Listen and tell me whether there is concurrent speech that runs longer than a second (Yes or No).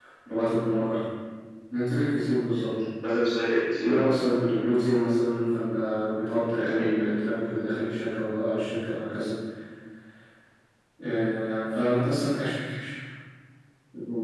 No